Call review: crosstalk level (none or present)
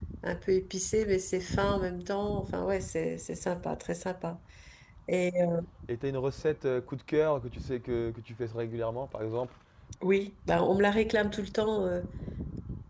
none